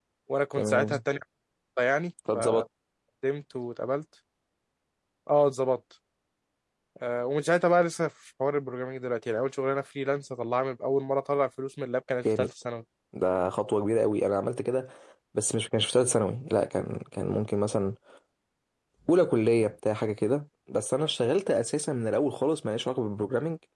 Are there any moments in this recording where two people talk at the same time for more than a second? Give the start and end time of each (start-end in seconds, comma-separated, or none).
none